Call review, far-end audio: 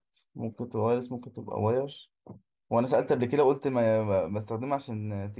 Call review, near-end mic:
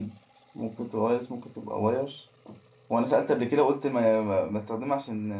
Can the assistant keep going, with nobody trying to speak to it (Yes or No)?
Yes